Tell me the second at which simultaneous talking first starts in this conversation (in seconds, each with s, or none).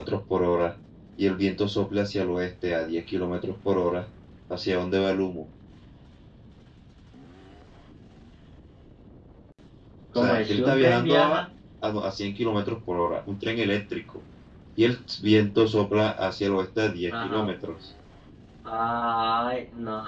10.1 s